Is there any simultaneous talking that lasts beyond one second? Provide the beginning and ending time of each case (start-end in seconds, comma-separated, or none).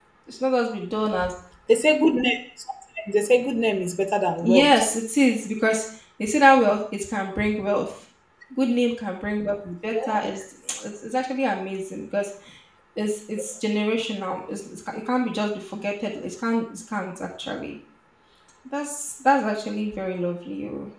none